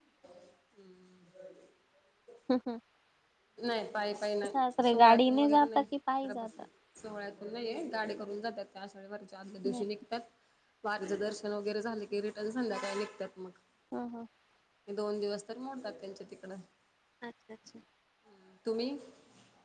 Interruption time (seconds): 4.5 s

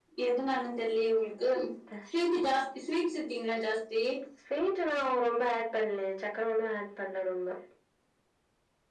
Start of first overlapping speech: none

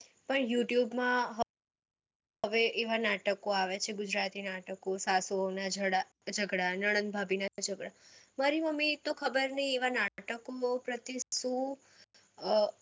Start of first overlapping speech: none

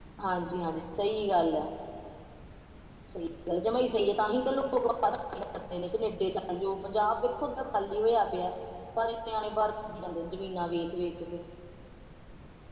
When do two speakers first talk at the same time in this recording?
none

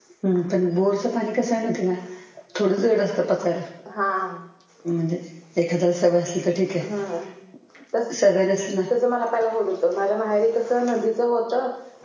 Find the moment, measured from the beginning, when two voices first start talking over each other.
none

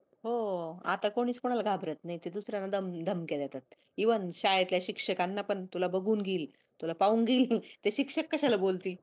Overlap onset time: none

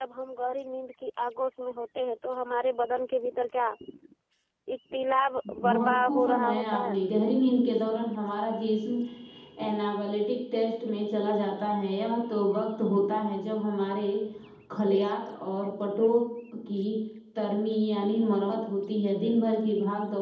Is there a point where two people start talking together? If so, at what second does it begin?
5.6 s

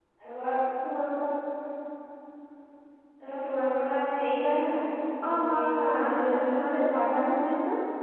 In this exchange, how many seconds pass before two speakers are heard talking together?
5.2 s

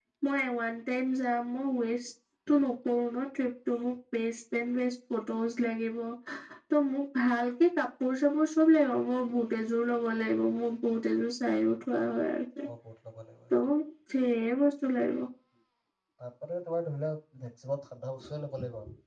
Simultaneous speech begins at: none

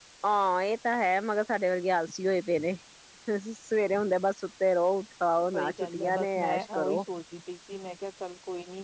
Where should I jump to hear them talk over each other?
5.5 s

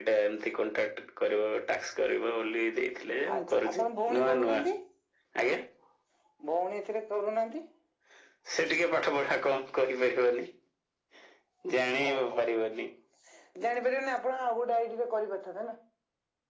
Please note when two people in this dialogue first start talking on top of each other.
3.3 s

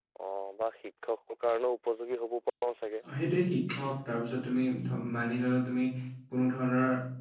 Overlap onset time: none

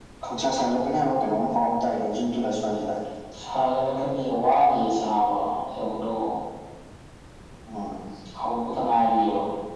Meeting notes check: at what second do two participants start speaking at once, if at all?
none

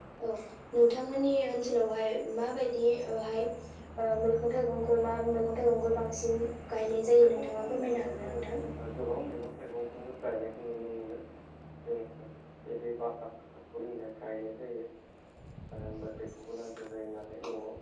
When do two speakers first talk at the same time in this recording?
6.8 s

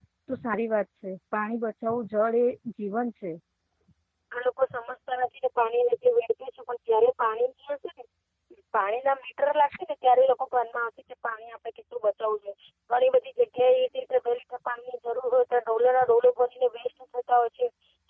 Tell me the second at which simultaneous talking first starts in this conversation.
none

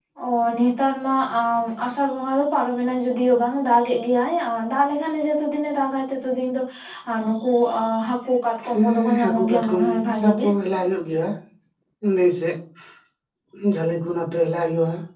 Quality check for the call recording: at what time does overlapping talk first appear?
8.7 s

